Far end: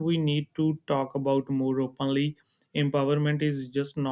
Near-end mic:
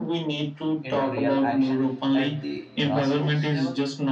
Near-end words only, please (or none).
into real action at the grassroots level?